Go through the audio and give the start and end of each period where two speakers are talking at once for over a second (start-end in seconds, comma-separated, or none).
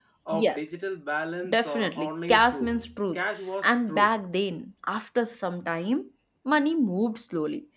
1.5-2.7